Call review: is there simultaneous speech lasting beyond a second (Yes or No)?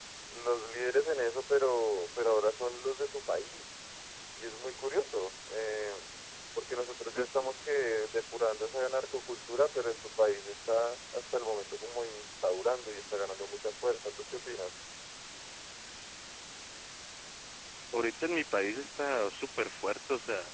No